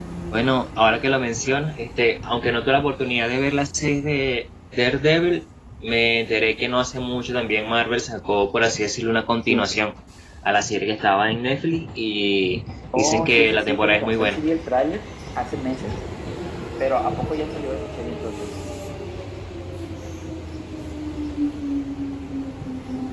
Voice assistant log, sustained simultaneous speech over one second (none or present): present